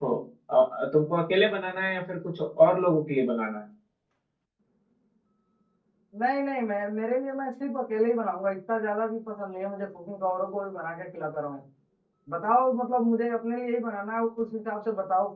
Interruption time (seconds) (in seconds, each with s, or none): none